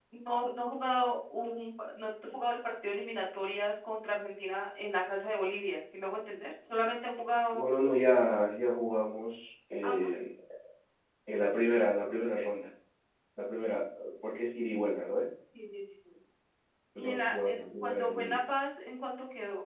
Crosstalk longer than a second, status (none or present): present